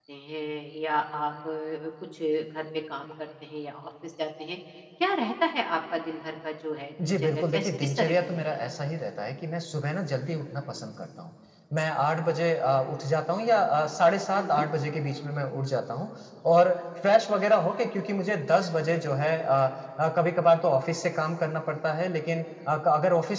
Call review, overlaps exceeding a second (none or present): present